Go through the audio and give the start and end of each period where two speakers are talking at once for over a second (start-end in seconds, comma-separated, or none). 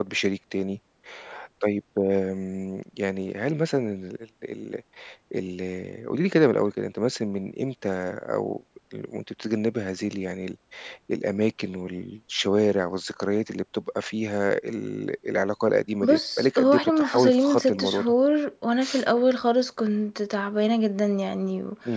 16.0-18.1